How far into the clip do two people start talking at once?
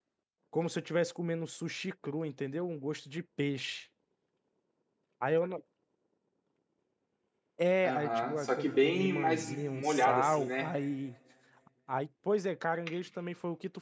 7.8 s

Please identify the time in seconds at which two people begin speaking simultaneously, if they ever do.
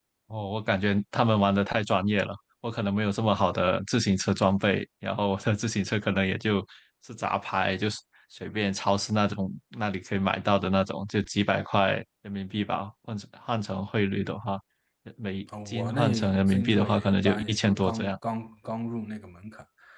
15.7 s

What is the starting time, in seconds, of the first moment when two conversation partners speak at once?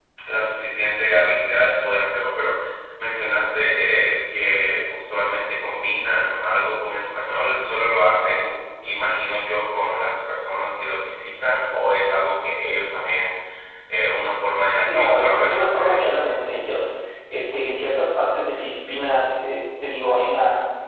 14.8 s

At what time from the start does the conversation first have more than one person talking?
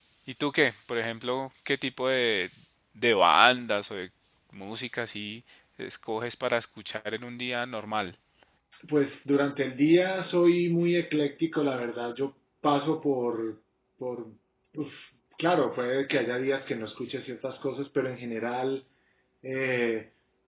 none

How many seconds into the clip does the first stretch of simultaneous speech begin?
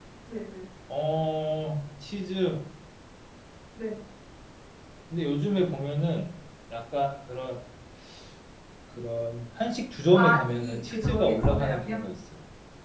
10.1 s

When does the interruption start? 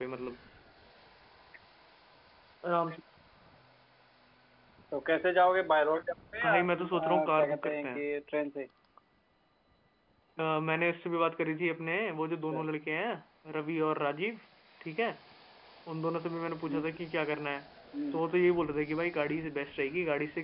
6.4 s

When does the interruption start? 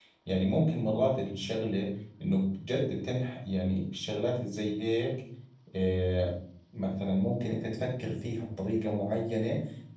none

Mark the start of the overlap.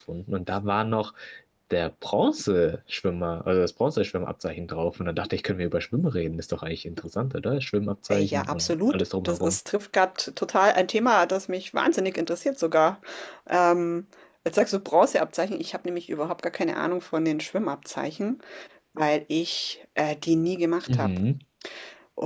8.1 s

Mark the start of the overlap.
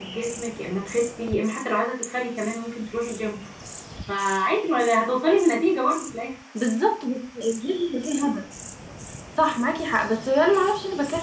none

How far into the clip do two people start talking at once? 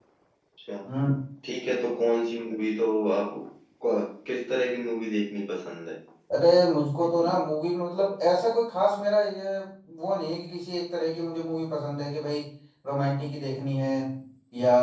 none

